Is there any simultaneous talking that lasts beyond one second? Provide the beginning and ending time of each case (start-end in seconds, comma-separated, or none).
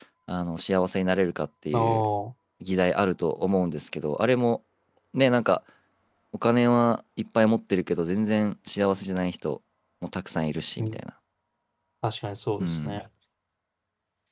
none